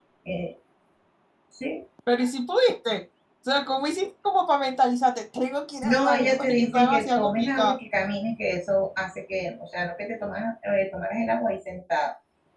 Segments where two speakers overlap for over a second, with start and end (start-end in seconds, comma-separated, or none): 5.8-7.8